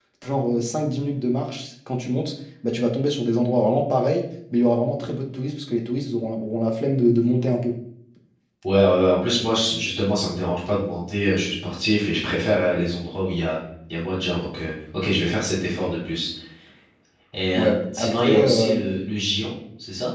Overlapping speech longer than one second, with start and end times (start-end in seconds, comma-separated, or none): 17.6-18.8